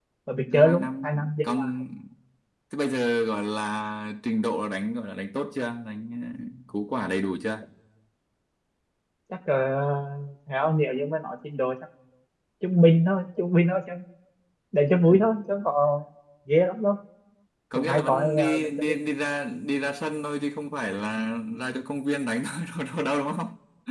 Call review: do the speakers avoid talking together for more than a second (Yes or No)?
No